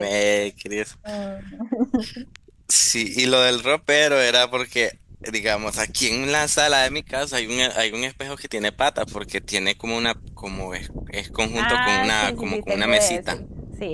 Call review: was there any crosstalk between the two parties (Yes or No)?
Yes